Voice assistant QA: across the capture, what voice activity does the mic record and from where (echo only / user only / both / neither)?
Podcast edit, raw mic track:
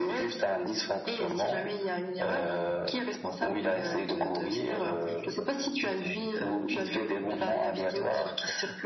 both